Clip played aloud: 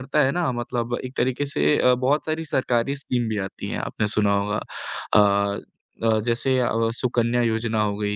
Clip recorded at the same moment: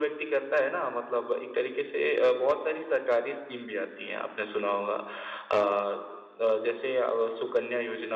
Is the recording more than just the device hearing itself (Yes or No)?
No